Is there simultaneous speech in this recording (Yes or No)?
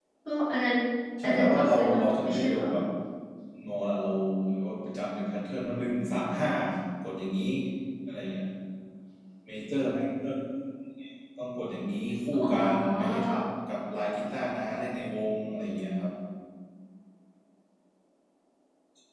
Yes